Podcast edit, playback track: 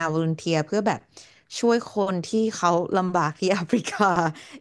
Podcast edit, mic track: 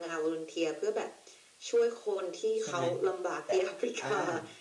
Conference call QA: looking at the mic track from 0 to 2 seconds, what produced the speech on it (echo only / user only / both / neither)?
echo only